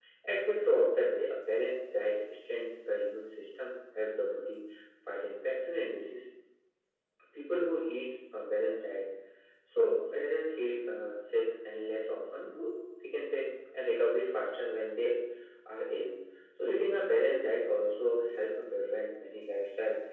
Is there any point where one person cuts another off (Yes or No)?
No